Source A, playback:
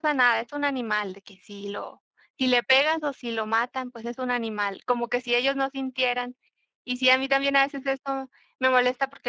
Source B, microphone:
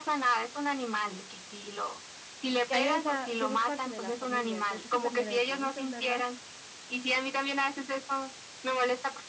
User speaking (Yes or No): Yes